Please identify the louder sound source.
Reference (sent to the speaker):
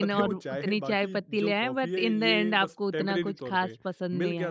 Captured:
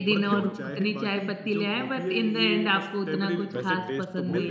echo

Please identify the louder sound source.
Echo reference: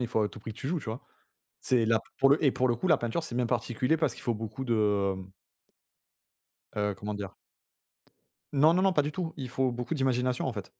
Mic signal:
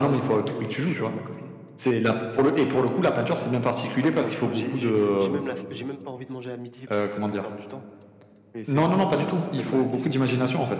echo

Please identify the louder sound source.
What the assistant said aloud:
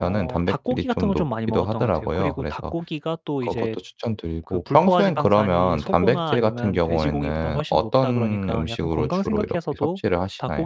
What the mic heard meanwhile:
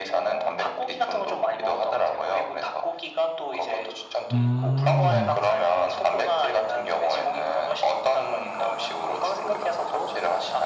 user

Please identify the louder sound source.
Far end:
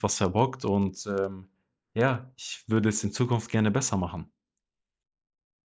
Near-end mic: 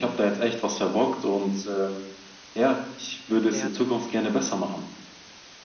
echo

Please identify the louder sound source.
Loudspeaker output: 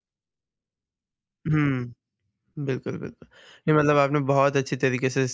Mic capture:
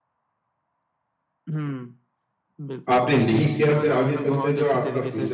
user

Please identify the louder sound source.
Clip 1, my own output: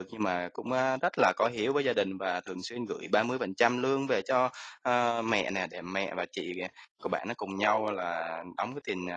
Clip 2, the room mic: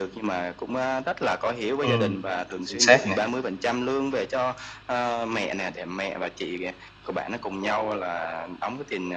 user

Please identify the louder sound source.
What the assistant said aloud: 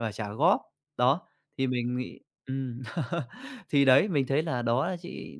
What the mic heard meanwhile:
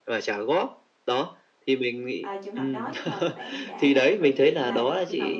echo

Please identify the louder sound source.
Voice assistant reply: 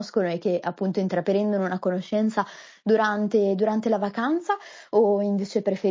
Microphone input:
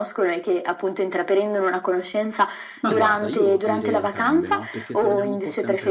echo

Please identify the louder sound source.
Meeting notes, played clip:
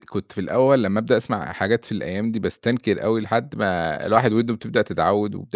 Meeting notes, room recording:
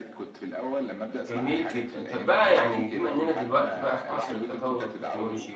user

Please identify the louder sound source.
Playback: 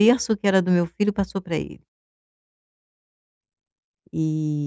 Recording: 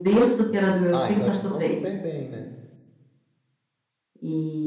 echo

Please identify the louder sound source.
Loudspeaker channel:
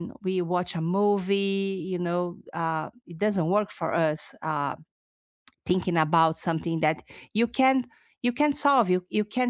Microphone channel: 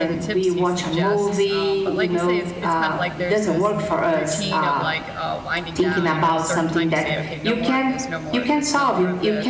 echo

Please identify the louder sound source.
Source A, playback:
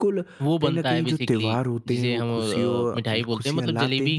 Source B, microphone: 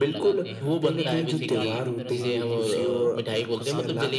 echo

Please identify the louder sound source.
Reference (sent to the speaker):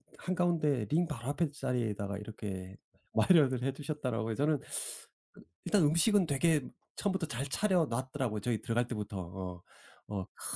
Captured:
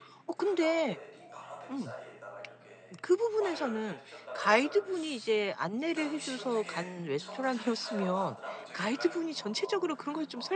user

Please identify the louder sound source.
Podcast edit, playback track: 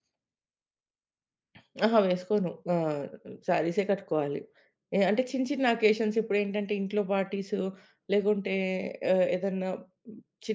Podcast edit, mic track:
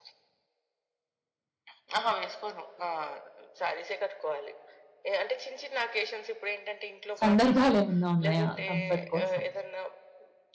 user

